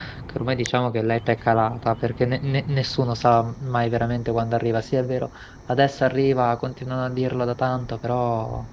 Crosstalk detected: No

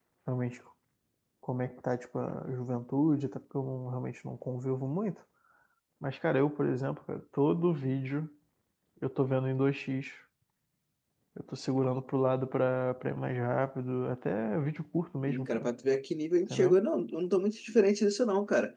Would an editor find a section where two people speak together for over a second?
No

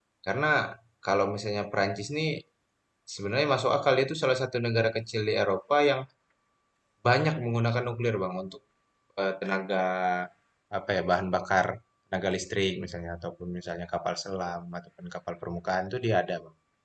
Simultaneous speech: No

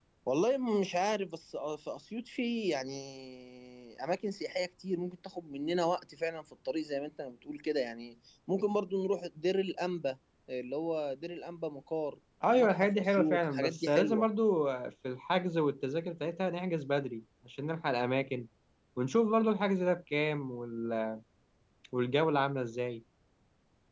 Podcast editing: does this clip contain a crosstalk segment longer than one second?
Yes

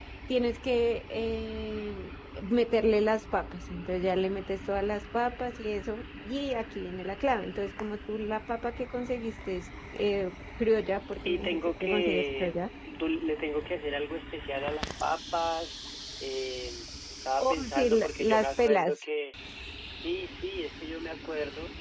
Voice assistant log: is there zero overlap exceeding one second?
No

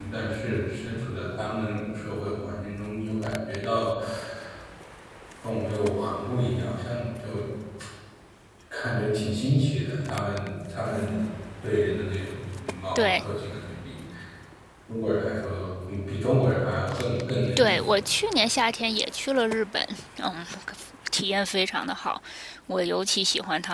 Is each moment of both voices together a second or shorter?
Yes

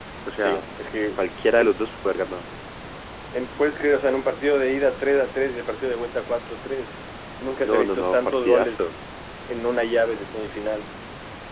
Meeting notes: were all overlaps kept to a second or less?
No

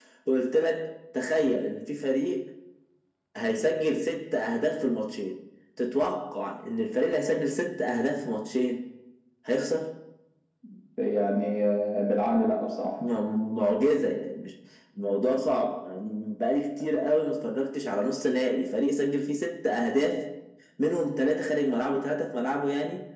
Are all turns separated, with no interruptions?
Yes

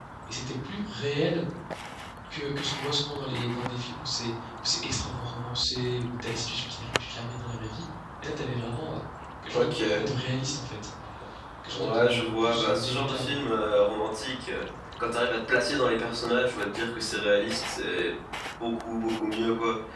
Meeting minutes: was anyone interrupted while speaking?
Yes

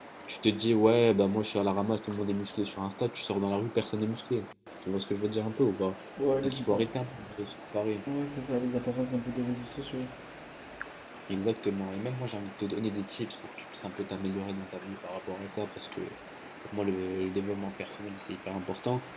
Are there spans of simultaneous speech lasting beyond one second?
No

